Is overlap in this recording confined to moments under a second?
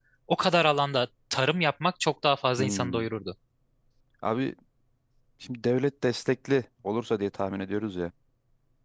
Yes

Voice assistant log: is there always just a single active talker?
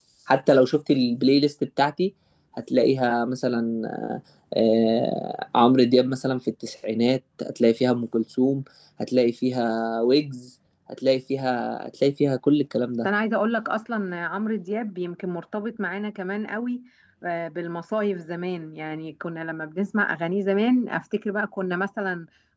Yes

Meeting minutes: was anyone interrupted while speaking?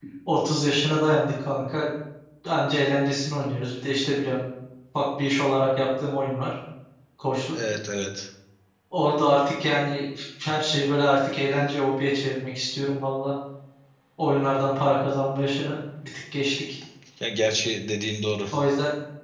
No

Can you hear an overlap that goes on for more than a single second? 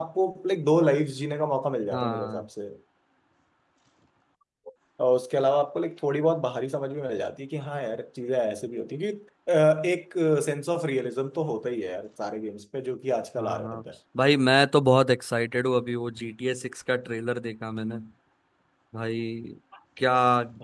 No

